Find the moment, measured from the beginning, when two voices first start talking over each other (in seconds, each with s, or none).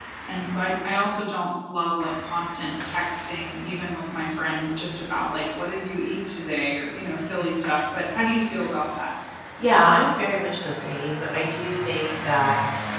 none